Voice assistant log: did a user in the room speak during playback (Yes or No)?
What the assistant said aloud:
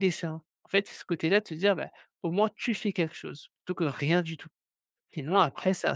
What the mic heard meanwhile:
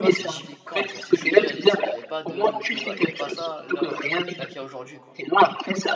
Yes